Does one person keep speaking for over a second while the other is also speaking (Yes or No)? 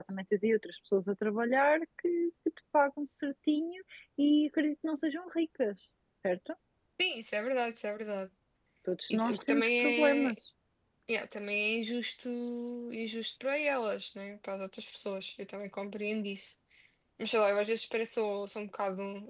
Yes